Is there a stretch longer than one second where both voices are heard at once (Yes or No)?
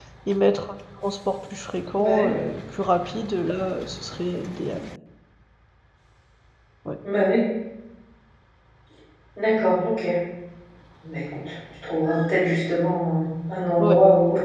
No